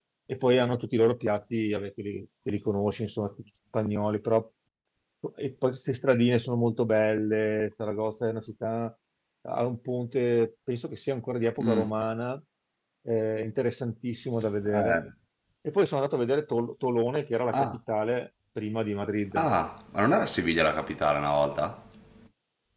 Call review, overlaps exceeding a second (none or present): none